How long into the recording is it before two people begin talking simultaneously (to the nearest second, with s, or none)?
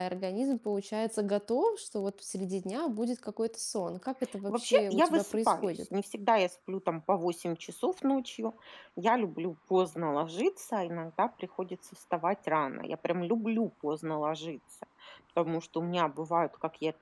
4 s